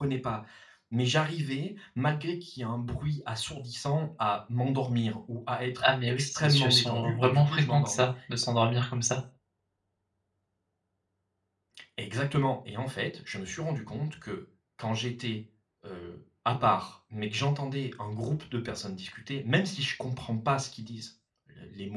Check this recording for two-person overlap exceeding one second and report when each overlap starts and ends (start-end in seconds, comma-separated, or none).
5.8-8.1